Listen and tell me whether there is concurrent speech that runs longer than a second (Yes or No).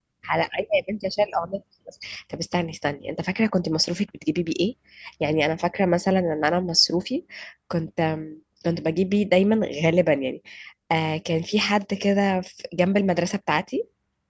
No